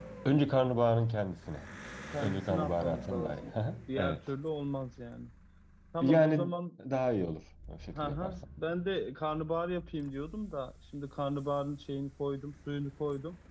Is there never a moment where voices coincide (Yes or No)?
No